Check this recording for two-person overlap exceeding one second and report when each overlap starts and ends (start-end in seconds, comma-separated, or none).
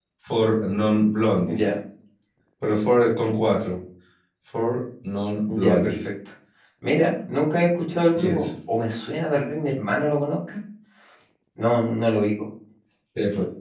none